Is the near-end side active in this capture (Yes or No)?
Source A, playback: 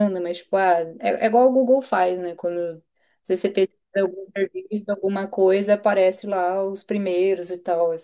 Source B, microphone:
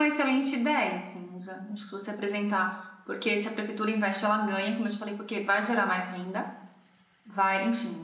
Yes